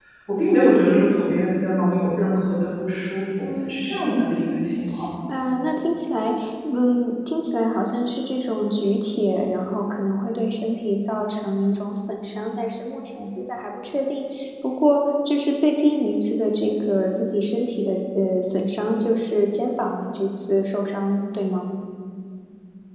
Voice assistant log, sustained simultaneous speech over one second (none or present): none